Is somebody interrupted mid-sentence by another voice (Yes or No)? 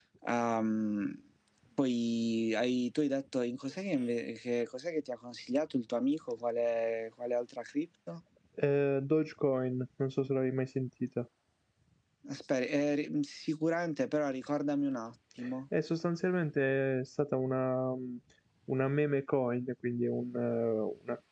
No